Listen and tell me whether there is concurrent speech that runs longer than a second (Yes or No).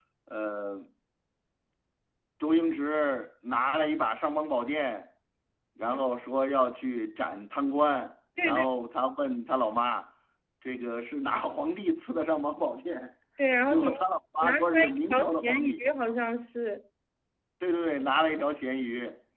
Yes